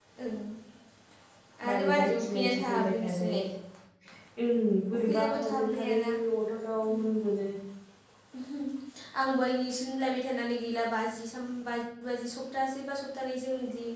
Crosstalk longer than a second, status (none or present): present